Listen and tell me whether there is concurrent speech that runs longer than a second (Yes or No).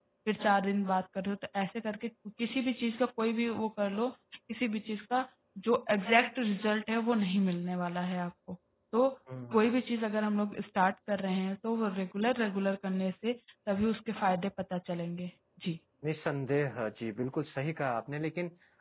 No